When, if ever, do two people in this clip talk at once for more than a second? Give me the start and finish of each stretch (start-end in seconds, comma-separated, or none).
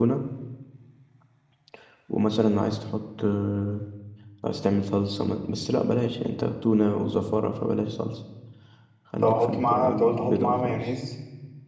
9.2-10.9